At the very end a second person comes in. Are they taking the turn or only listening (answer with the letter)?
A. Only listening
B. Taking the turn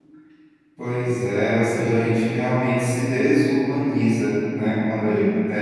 A